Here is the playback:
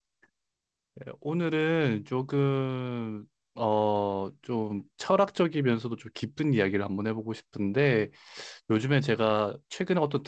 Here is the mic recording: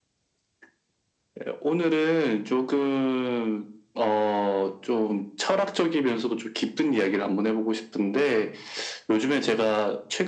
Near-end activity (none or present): none